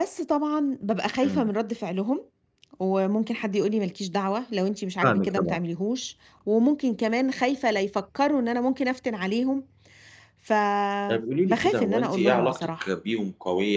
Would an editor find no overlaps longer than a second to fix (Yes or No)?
No